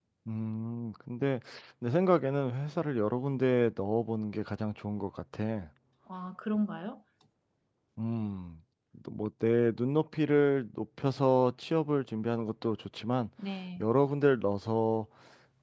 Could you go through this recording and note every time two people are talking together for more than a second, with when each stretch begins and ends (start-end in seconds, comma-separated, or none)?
none